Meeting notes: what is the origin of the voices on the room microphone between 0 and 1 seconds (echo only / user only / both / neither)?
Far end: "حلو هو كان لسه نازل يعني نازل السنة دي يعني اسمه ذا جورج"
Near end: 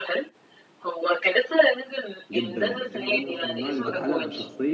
echo only